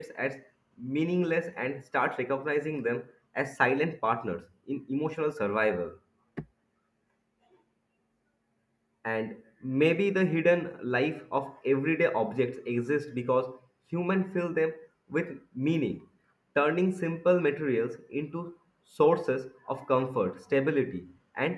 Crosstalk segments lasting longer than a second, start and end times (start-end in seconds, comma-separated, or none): none